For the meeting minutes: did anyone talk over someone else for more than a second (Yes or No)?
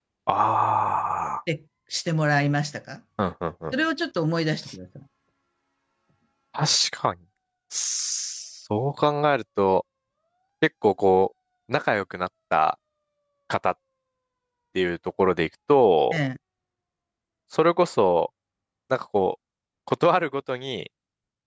No